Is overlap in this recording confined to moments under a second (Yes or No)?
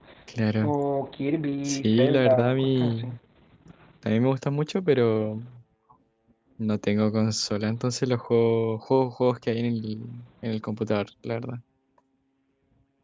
No